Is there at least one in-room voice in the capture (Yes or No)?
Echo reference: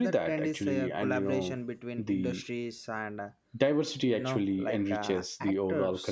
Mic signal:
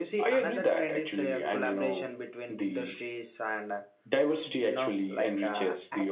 No